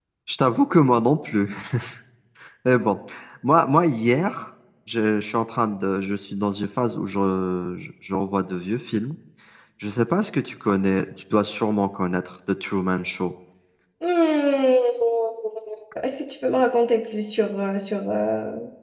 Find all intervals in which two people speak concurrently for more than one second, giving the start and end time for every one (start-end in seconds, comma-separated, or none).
none